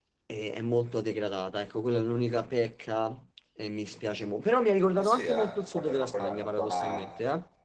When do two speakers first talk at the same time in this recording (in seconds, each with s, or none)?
5.0 s